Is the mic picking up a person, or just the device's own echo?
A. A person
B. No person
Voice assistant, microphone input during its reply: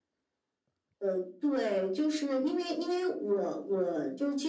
B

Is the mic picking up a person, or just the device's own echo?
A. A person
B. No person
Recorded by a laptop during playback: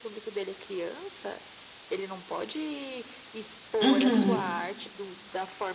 A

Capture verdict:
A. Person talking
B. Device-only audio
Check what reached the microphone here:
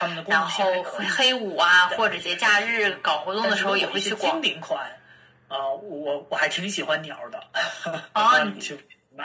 B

